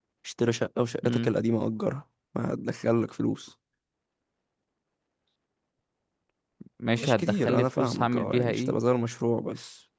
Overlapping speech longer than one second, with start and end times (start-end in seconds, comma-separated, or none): 7.0-8.8